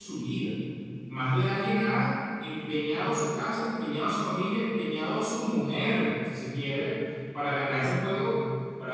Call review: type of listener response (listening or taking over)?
listening